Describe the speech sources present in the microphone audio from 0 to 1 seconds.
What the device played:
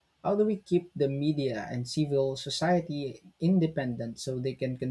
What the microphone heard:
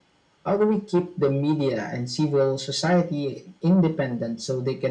echo only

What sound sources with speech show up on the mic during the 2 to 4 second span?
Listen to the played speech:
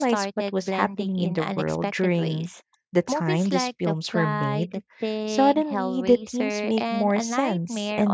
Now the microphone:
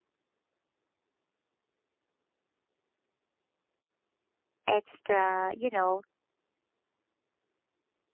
neither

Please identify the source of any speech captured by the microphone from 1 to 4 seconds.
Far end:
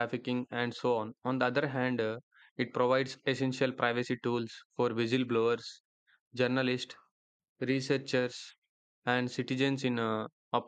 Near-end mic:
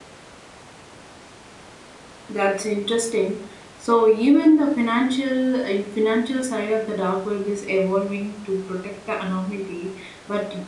user only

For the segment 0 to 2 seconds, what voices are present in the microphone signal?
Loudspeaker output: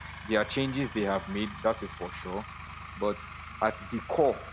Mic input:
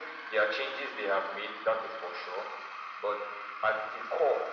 echo only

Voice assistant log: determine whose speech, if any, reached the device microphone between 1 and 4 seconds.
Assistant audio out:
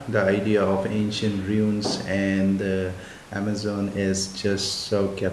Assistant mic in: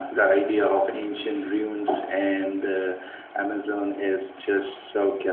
echo only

